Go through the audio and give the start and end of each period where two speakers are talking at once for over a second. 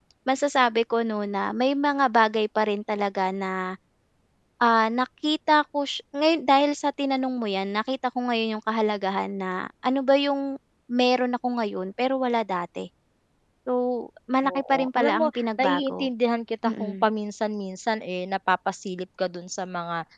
14.4-16.1

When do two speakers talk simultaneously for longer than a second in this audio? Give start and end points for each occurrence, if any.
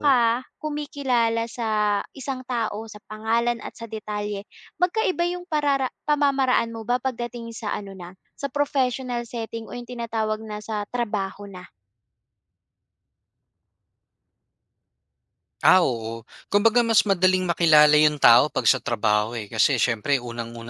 none

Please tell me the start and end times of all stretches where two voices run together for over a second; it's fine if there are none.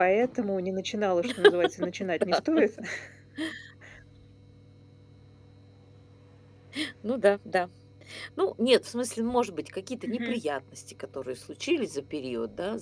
none

